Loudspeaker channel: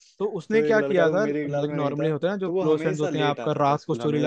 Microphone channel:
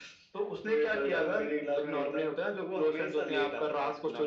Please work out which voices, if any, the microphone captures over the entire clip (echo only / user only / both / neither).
echo only